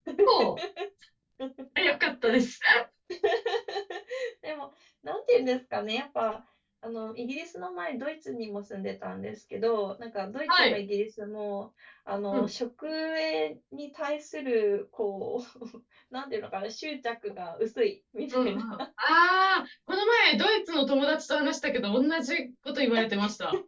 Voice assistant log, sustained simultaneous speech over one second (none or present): none